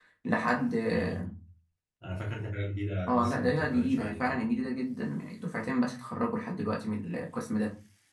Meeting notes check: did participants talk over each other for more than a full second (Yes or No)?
Yes